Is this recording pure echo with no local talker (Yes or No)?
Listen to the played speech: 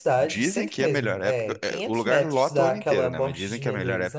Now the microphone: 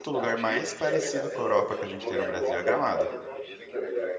No